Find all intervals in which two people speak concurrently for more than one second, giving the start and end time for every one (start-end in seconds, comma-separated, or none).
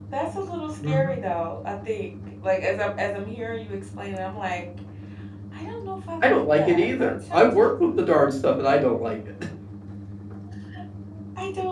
6.2-7.6